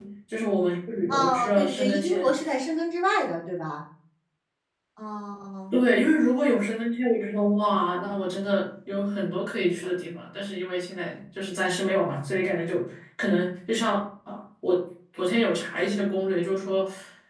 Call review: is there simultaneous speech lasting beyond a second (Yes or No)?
Yes